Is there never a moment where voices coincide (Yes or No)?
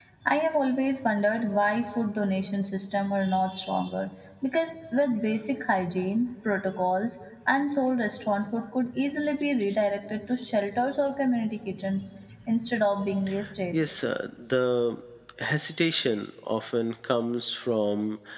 Yes